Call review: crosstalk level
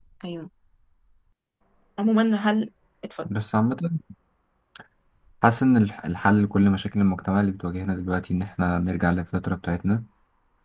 none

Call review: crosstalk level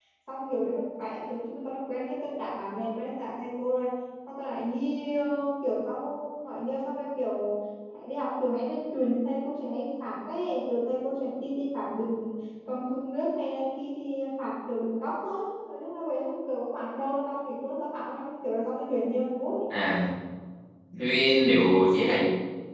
none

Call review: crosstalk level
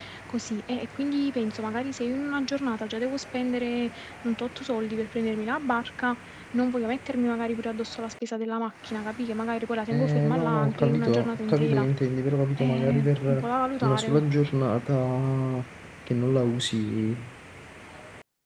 present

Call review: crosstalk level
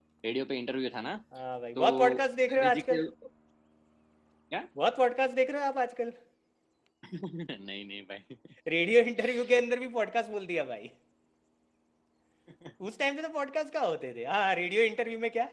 present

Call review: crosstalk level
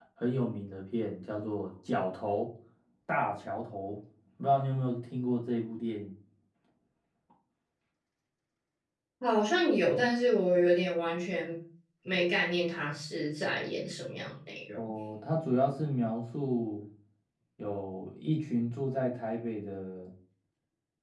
none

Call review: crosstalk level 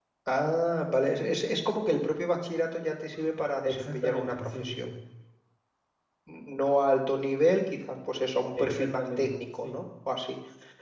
present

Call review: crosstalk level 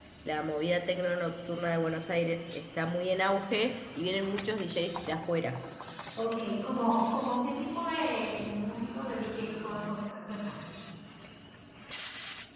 none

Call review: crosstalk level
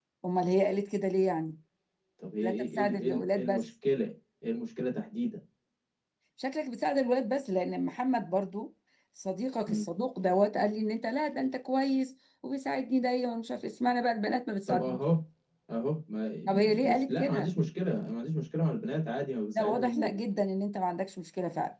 present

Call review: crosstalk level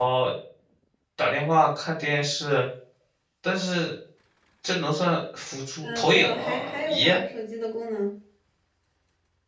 present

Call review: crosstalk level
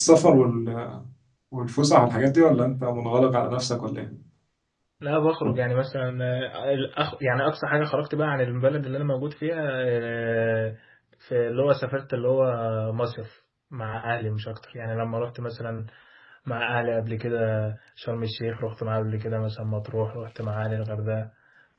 none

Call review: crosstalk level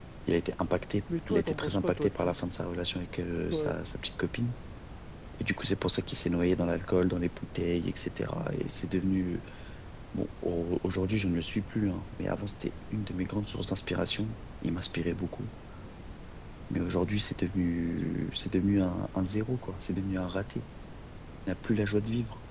present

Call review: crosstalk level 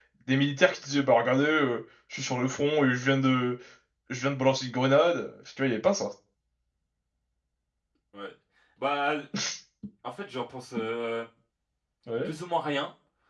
none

